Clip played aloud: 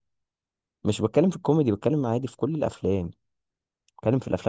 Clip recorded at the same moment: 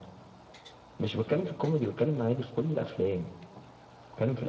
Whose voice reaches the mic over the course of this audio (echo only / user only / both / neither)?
echo only